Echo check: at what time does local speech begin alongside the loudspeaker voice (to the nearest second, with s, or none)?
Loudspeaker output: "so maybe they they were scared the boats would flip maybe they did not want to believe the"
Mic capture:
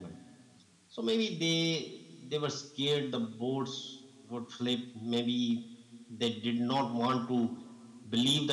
none